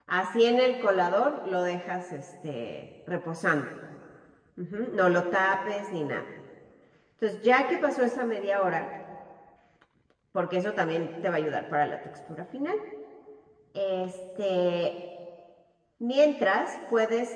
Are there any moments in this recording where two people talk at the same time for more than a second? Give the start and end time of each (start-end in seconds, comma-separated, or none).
none